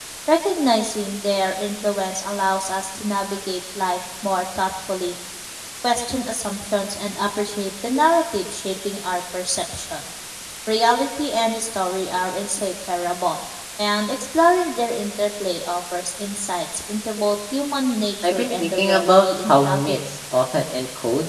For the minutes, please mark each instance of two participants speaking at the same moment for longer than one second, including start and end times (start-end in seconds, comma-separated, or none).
18.2-20.0